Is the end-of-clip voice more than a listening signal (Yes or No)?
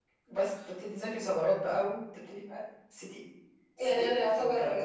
Yes